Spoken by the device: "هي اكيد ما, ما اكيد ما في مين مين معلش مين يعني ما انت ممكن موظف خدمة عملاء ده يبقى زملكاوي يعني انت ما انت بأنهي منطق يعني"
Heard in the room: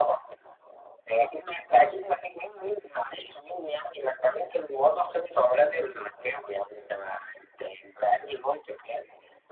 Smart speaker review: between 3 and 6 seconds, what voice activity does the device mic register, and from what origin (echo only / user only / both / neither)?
echo only